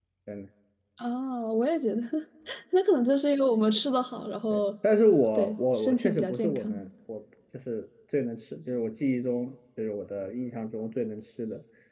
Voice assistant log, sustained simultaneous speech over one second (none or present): present